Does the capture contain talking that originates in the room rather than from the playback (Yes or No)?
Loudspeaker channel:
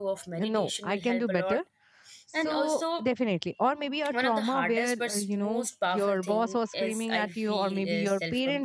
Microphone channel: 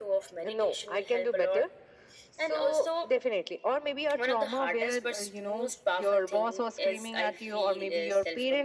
No